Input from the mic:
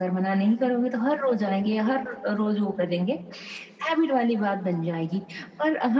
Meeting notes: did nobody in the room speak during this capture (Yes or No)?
Yes